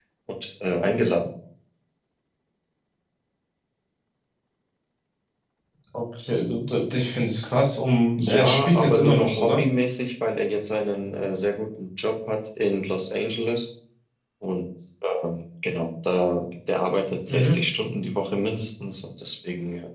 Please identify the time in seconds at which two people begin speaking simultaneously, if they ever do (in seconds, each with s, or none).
8.2 s